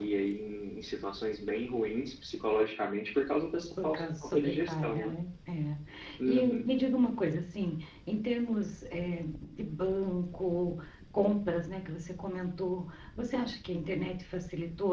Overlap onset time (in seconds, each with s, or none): 3.8 s